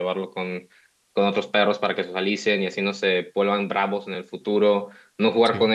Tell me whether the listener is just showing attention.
Yes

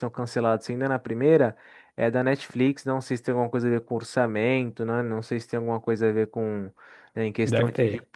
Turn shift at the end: No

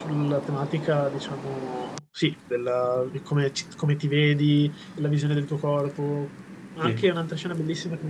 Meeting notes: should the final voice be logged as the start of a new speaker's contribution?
No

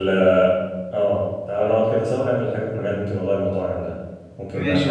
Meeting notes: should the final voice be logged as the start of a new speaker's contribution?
Yes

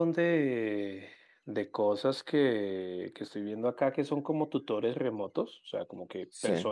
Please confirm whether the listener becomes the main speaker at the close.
No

